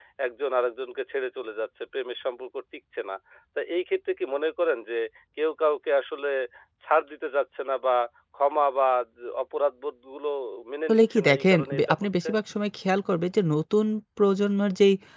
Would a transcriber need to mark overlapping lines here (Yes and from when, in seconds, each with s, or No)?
Yes, from 10.9 s